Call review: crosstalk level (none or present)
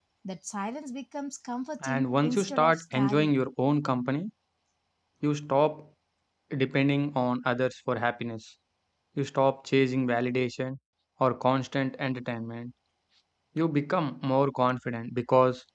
present